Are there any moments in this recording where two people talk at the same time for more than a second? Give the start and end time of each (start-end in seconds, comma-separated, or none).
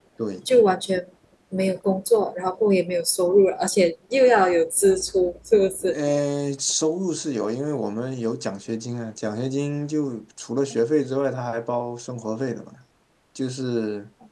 none